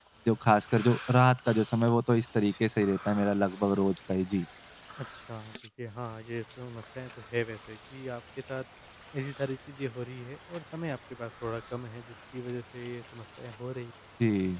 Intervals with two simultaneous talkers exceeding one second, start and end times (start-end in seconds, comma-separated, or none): none